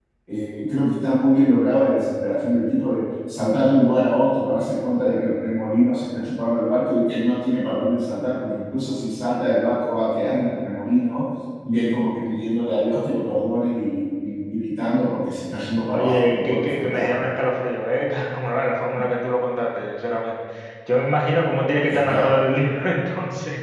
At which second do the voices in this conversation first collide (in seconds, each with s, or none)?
15.9 s